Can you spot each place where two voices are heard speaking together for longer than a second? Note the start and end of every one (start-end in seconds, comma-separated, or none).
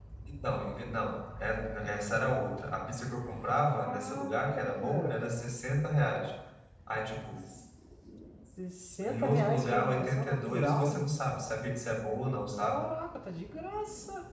3.7-5.6, 9.0-11.0